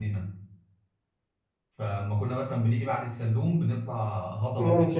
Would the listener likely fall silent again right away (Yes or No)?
Yes